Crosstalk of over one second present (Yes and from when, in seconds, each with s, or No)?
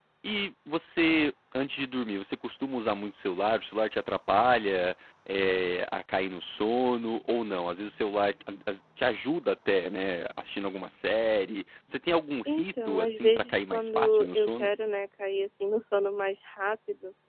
Yes, from 12.5 s